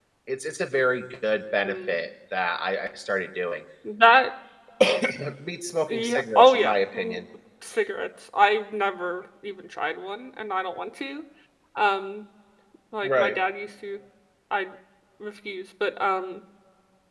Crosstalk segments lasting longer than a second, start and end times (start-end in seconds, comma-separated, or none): 5.9-7.2